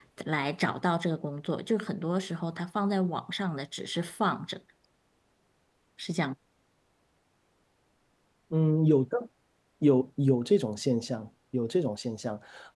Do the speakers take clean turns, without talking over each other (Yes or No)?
Yes